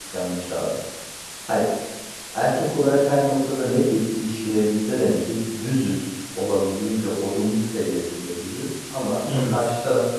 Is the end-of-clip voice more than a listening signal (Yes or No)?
No